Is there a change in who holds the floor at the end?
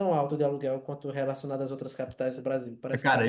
Yes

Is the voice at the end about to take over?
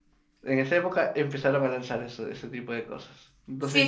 Yes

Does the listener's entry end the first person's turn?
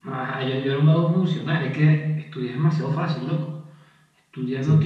No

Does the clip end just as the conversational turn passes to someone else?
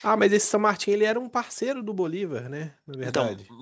Yes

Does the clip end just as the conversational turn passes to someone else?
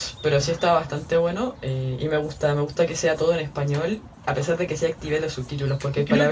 No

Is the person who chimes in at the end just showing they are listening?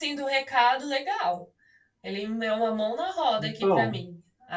Yes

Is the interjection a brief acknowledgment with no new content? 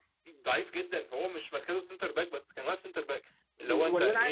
No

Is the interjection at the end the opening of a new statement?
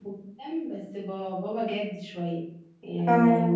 No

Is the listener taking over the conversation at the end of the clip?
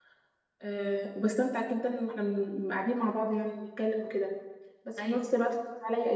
No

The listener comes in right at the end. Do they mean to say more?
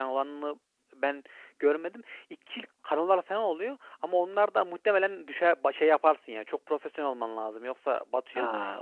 Yes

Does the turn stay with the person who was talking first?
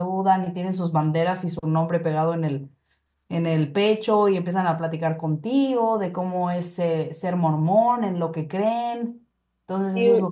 No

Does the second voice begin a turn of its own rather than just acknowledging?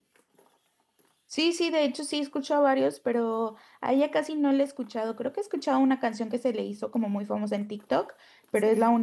No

